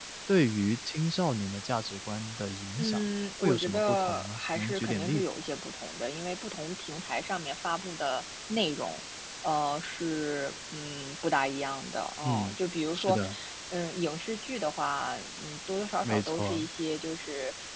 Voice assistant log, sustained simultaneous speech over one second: present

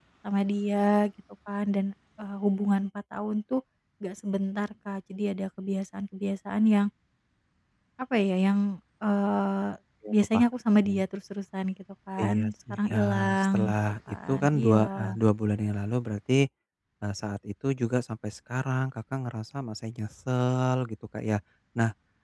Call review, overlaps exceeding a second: present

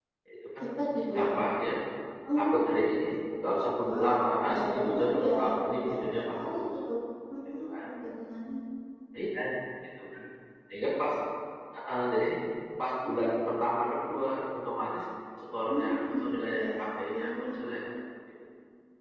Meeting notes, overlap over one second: present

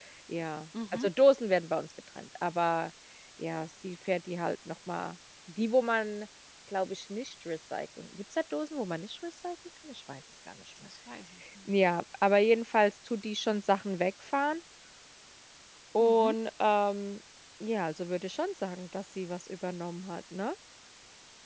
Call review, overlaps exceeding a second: none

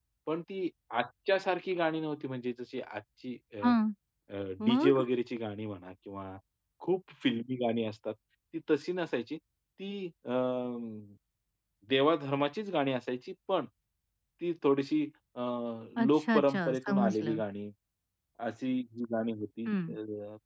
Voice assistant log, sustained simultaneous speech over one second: present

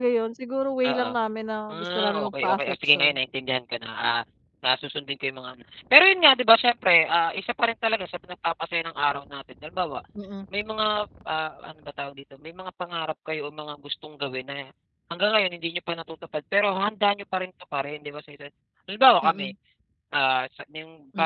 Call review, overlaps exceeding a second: present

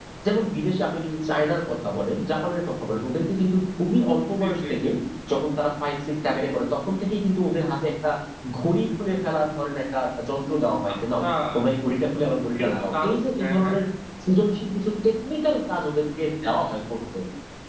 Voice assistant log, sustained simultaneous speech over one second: present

